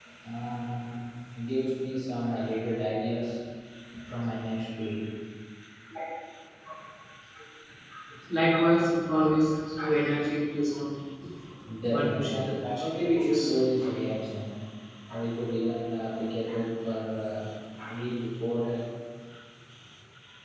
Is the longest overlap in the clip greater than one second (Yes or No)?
Yes